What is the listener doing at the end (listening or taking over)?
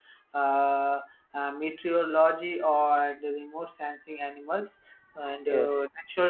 listening